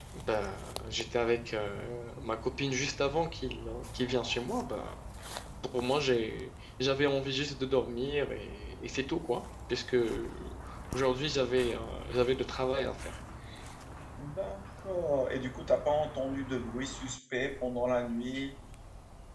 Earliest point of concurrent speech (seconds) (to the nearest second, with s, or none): none